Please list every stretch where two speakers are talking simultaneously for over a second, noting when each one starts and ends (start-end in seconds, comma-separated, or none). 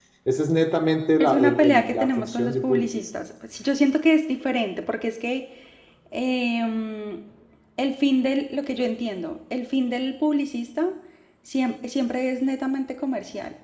1.2-3.1